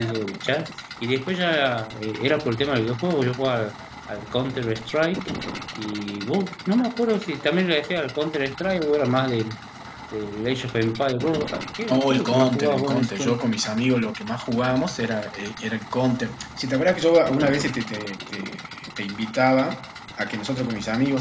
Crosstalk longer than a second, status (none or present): present